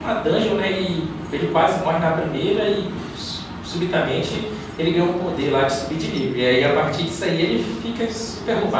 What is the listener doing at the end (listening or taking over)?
taking over